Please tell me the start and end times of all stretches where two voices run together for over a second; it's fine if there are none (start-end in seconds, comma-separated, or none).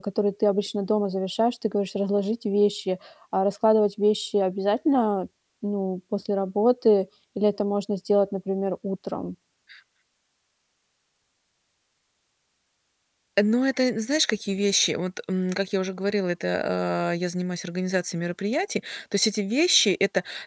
none